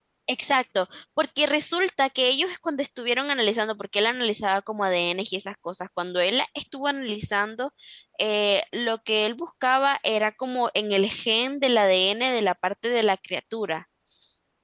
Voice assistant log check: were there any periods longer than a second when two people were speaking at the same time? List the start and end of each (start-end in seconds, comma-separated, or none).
none